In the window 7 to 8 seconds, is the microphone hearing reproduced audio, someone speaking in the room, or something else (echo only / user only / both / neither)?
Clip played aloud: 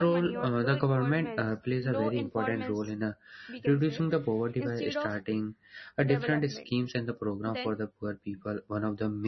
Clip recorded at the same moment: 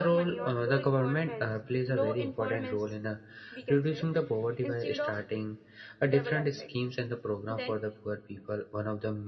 echo only